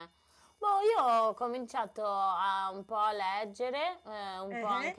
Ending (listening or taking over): listening